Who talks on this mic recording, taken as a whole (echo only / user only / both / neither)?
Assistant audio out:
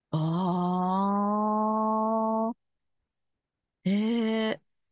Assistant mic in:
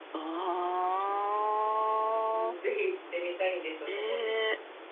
both